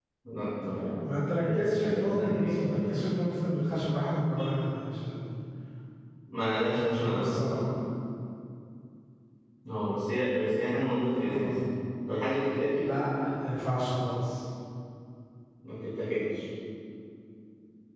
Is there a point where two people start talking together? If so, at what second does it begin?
1.3 s

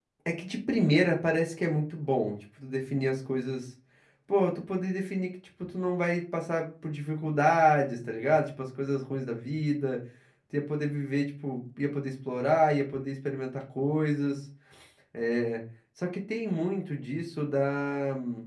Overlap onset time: none

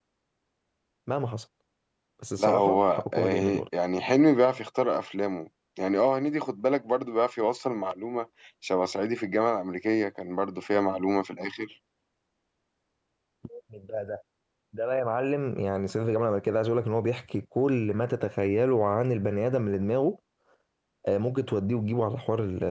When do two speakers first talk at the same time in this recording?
2.4 s

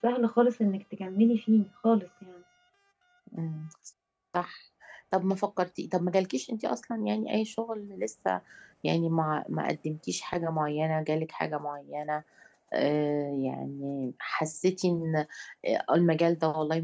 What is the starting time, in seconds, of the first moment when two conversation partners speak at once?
none

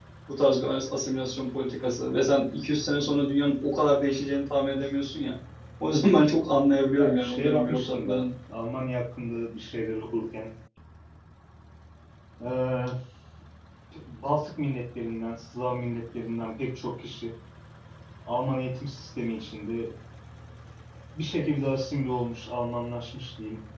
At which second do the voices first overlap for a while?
6.9 s

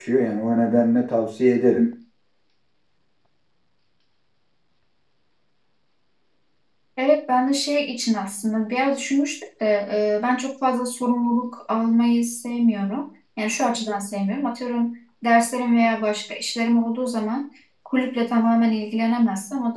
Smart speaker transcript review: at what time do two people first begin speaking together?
none

